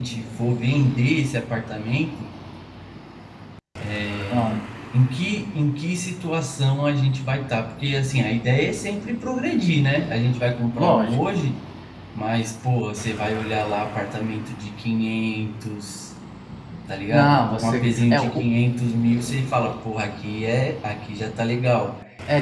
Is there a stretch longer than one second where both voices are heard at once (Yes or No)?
Yes